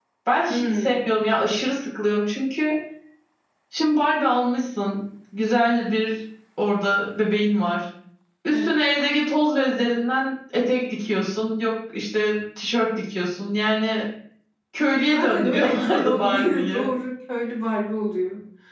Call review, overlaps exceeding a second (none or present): present